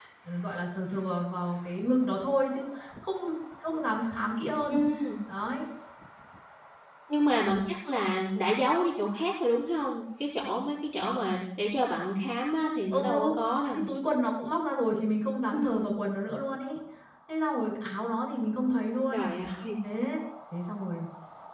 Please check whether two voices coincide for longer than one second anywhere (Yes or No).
No